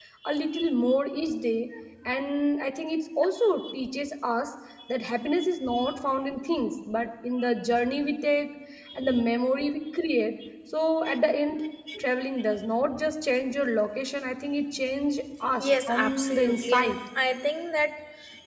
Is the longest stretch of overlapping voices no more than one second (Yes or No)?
No